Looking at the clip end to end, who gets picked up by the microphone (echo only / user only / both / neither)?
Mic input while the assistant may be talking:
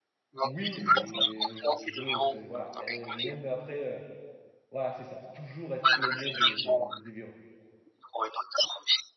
both